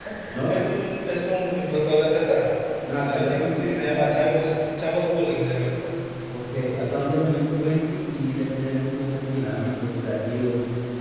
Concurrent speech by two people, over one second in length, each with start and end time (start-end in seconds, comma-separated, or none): 3.0-4.5